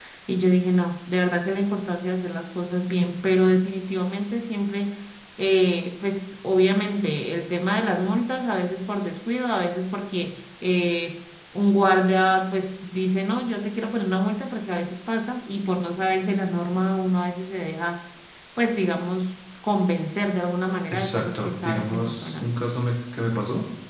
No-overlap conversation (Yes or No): No